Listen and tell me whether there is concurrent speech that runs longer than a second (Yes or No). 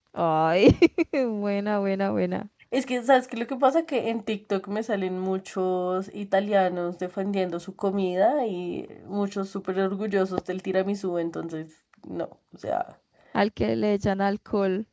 No